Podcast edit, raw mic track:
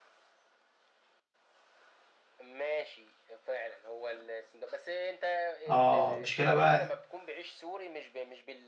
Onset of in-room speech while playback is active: 5.7 s

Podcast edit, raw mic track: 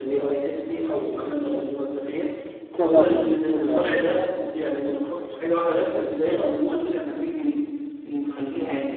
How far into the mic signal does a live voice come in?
2.7 s

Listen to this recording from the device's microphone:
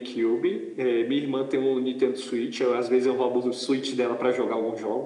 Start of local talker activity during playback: none

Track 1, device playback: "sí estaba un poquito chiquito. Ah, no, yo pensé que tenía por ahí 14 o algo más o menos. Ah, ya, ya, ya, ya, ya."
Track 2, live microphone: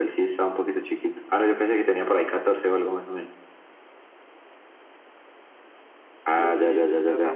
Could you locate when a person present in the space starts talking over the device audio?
6.2 s

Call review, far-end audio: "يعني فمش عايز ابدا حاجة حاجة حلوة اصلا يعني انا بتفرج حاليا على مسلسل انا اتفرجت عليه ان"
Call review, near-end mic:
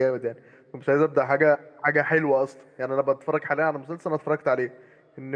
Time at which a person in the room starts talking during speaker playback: none

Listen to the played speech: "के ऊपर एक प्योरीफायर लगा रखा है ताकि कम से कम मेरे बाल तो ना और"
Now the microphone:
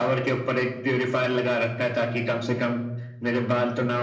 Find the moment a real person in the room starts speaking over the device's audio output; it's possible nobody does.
none

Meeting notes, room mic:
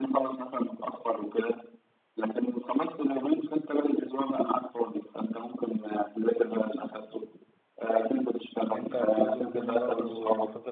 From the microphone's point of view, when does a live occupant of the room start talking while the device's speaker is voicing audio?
8.7 s

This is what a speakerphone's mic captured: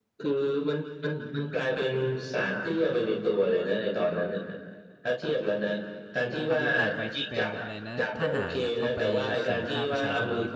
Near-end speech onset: 6.4 s

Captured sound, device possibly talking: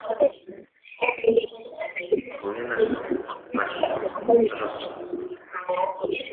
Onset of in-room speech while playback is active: 2.4 s

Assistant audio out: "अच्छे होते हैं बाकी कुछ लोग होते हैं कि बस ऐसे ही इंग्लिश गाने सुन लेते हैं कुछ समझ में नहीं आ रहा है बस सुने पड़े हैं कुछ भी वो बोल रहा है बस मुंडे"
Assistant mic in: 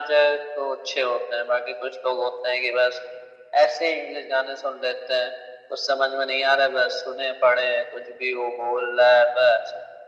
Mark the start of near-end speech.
none

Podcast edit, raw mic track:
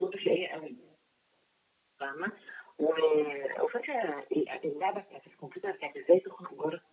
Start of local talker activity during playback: none

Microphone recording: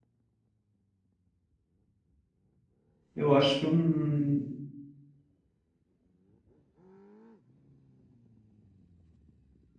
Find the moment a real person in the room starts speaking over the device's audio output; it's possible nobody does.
3.1 s

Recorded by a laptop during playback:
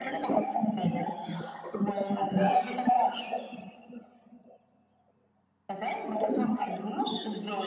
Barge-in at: none

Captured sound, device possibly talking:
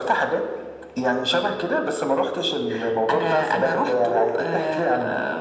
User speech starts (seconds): none

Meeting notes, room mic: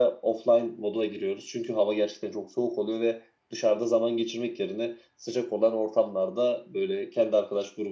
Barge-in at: none

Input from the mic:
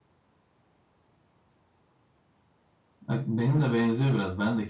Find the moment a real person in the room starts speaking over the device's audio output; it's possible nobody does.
3.1 s

